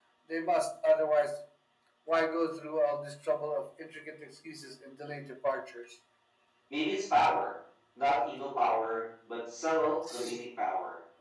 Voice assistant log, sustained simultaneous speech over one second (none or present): none